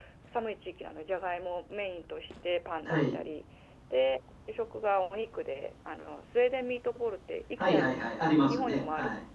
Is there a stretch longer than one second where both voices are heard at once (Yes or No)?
Yes